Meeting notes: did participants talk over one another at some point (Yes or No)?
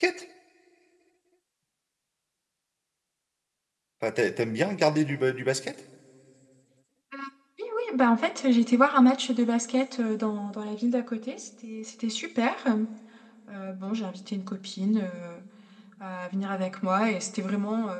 No